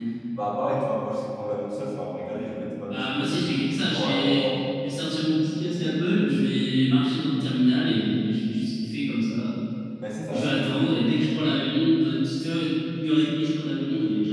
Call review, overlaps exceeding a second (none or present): present